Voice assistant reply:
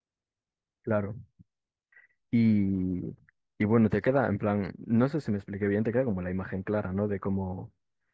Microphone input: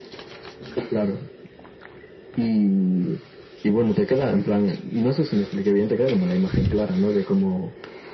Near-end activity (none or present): none